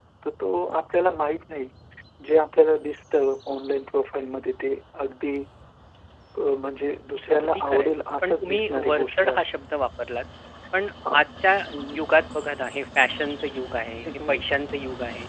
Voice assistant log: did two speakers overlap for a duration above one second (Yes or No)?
Yes